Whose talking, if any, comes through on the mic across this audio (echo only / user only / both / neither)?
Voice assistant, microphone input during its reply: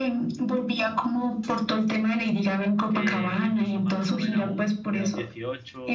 both